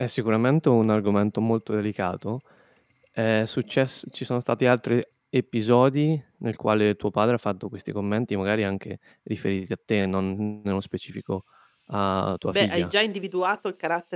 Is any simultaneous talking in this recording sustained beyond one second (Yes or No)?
No